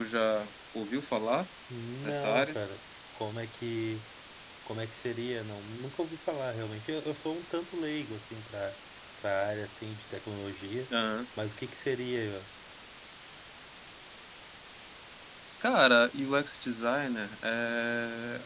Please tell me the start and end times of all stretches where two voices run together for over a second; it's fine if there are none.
none

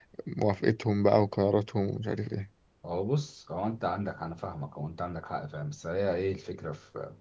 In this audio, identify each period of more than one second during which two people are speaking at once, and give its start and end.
none

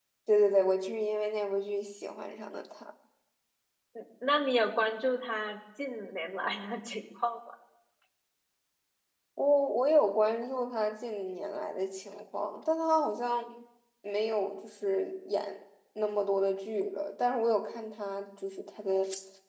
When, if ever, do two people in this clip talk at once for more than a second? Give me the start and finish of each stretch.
none

